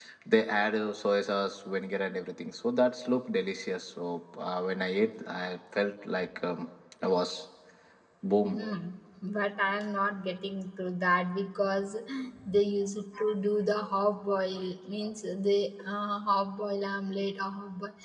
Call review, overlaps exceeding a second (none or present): none